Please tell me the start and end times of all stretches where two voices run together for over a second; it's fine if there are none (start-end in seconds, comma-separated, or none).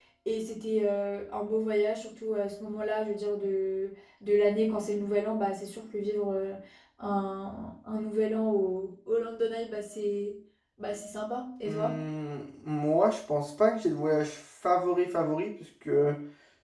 none